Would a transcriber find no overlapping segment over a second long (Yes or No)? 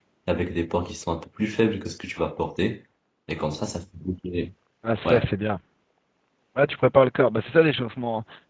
Yes